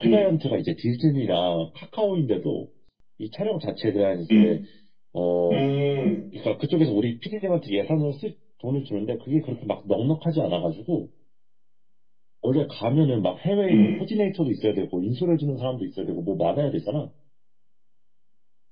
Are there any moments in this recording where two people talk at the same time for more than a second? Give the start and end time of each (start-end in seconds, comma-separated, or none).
none